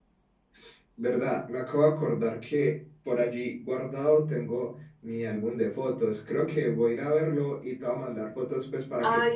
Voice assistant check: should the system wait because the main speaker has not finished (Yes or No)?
No